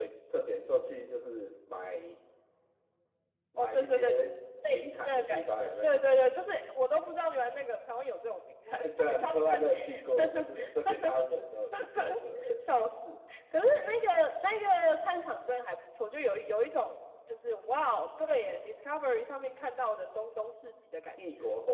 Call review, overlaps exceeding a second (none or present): present